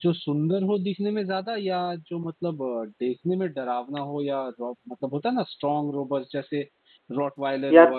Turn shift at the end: No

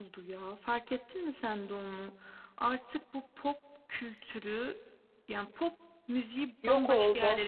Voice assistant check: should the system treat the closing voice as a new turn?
No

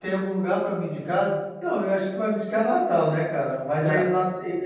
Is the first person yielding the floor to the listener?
No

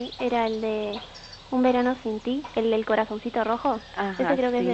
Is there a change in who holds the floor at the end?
Yes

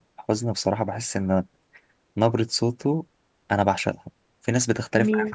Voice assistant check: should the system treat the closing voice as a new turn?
No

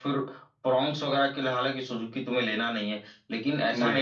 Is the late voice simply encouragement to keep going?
Yes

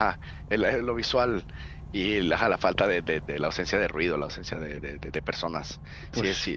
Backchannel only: Yes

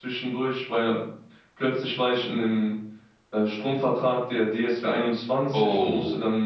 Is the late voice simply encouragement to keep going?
Yes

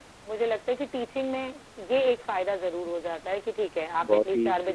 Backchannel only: No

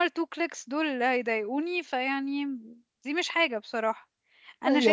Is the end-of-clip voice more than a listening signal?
Yes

